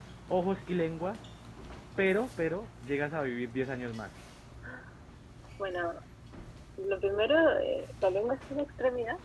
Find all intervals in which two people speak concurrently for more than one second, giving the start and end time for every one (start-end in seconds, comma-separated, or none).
none